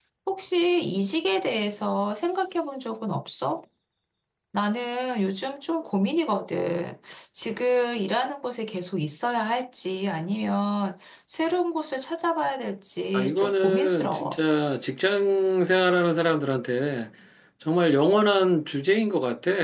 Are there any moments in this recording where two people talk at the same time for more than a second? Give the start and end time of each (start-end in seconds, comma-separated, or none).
13.1-14.4